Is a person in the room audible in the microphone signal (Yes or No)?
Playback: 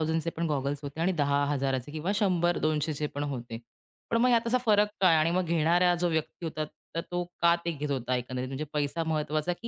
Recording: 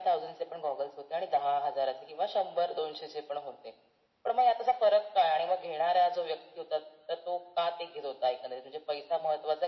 No